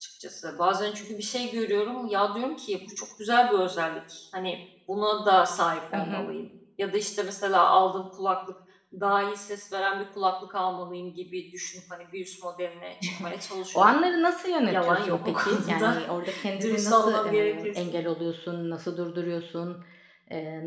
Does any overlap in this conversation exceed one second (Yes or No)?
Yes